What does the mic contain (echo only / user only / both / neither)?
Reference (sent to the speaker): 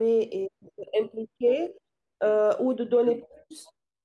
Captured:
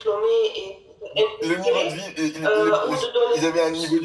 both